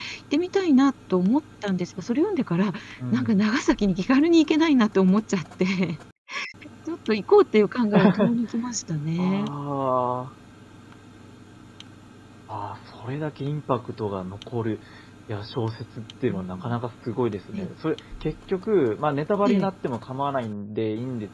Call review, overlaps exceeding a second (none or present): none